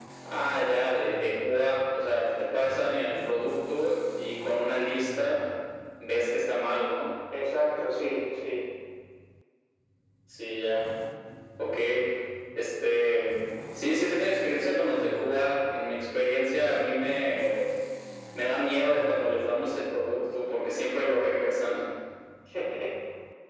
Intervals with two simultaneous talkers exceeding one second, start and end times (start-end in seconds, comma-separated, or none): none